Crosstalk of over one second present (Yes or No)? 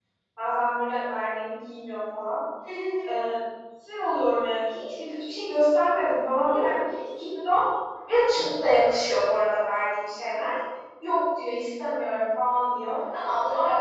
No